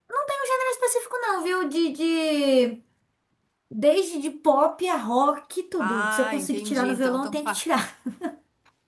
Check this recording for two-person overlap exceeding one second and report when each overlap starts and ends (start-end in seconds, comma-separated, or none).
5.8-7.6